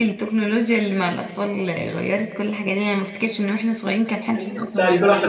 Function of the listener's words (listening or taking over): taking over